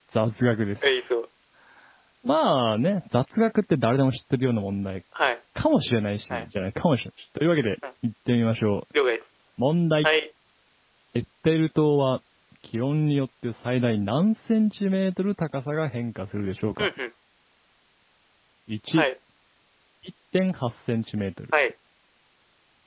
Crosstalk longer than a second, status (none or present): none